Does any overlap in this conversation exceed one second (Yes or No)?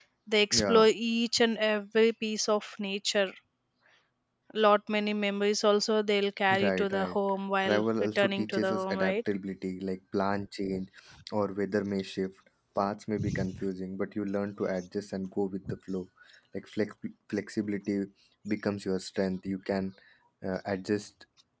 Yes